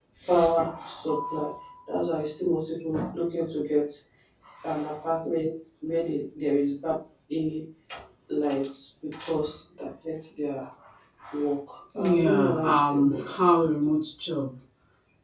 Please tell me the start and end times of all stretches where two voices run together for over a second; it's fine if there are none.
11.9-13.3

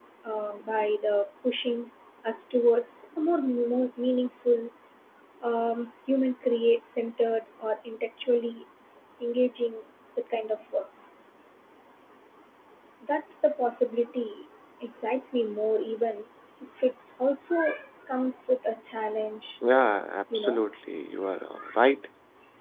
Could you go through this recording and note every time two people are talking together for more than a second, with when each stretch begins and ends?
none

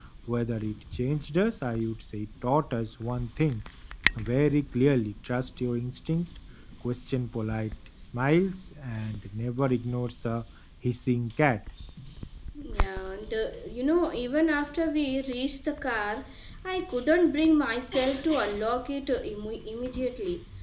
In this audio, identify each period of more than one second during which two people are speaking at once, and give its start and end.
none

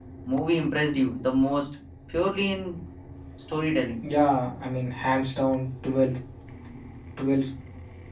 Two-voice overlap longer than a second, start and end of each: none

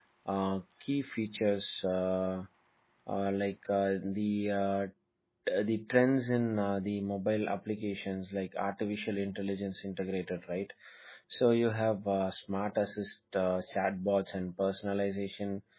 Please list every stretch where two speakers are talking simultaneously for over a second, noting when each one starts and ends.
none

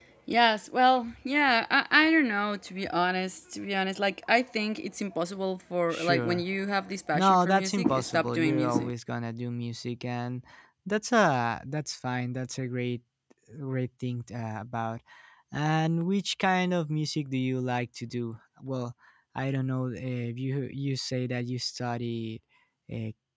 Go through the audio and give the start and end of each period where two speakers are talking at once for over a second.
7.1-8.9

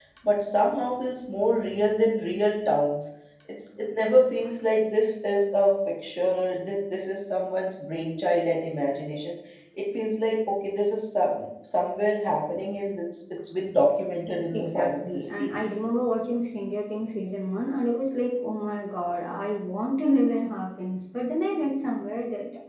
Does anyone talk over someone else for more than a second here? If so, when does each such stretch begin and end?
14.5-15.8

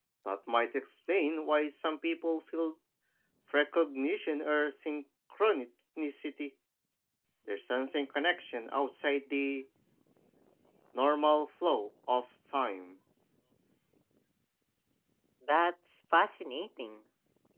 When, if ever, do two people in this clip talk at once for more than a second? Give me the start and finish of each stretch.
none

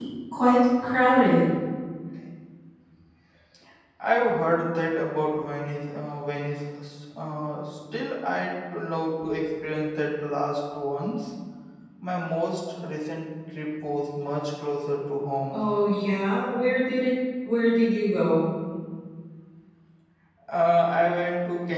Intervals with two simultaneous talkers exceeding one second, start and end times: none

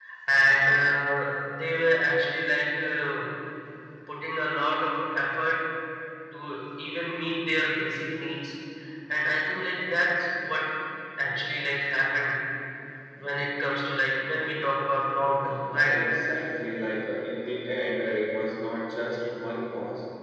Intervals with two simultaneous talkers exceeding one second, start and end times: none

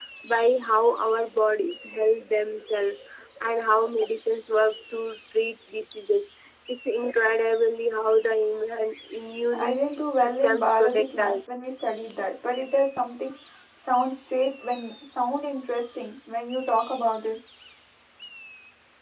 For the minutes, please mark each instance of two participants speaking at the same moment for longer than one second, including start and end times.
9.6-11.5

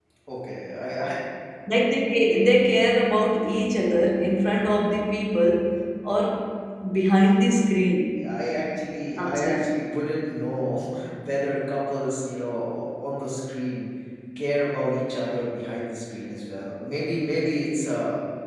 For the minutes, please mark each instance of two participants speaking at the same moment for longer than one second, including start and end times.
none

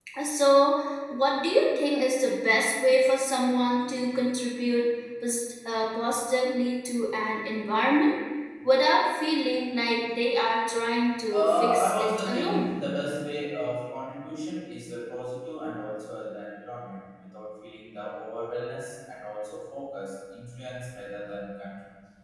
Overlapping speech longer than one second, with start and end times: 11.3-12.7

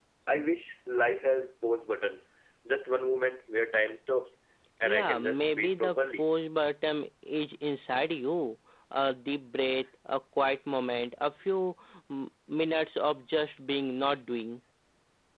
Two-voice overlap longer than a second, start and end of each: 4.8-6.2

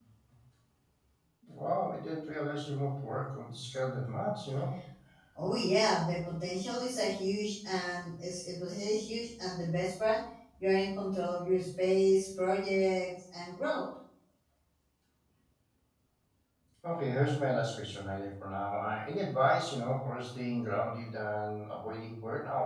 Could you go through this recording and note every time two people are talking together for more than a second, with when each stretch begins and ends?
none

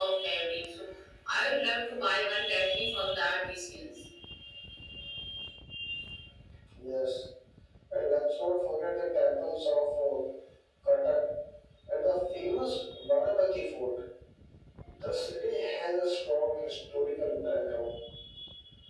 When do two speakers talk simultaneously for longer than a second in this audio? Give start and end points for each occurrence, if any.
none

